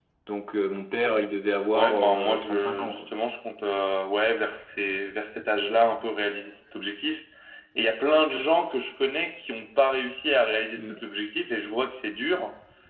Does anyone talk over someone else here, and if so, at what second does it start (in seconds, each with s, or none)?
1.7 s